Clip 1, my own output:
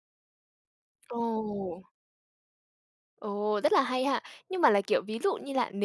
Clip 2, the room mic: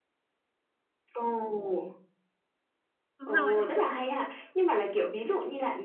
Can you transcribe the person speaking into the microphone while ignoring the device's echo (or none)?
Đúng rồi.